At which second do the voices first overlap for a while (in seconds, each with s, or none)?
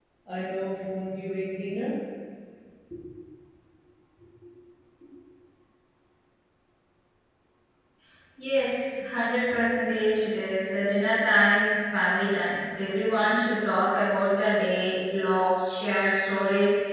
none